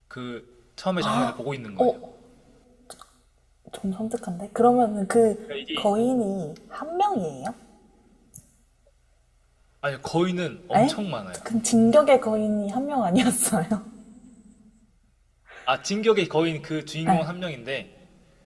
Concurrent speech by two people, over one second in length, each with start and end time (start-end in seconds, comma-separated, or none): none